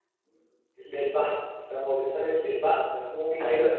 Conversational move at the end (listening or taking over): listening